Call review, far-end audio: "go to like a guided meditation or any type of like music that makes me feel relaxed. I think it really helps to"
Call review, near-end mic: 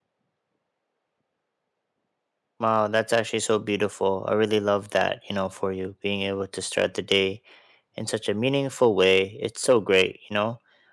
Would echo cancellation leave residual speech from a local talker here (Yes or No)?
Yes